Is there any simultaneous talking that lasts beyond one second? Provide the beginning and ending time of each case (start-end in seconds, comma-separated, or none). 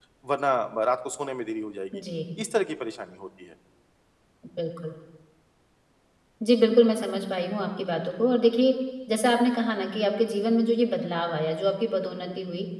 none